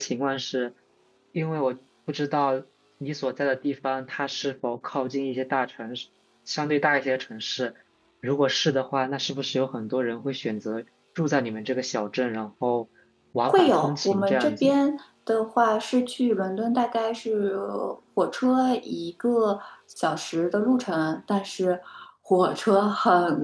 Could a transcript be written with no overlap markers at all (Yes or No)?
No